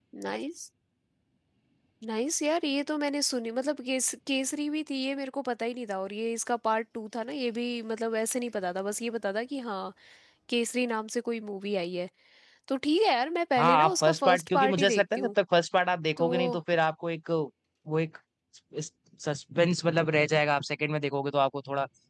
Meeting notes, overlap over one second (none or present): present